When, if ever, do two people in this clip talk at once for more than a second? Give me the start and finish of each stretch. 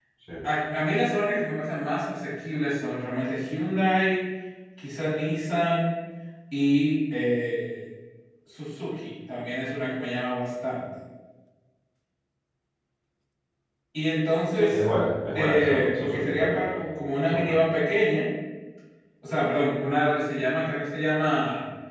15.3-16.6

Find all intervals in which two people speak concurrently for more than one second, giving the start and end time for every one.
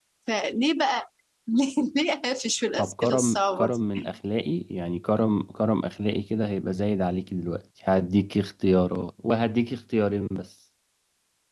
2.8-4.1

